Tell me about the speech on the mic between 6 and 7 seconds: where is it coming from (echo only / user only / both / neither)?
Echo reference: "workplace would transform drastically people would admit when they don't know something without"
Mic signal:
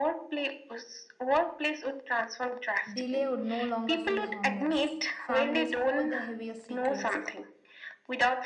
both